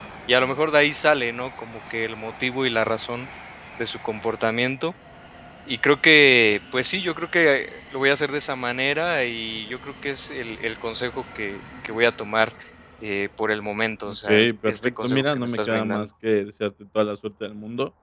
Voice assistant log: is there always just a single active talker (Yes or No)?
No